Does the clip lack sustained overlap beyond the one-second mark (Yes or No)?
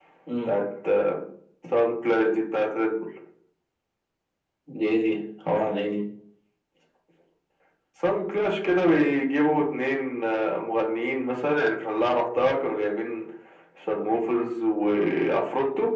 Yes